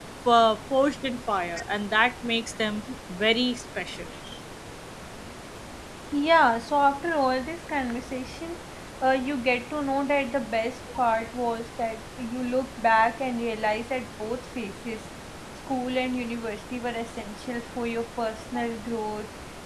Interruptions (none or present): none